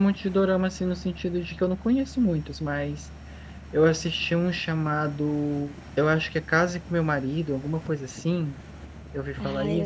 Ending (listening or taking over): taking over